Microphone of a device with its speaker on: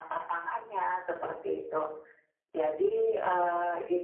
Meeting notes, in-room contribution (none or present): none